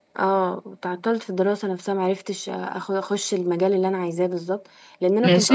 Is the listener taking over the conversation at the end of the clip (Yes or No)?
No